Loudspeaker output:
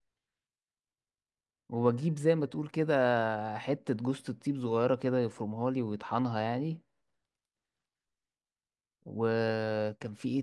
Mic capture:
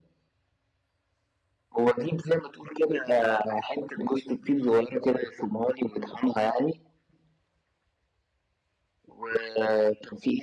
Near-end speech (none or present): none